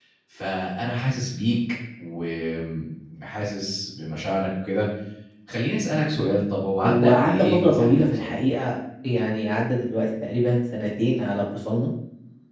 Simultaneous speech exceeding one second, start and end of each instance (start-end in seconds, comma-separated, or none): 6.8-8.4